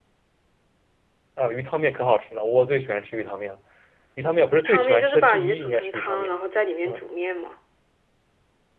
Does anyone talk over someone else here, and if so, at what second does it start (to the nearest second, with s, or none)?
5 s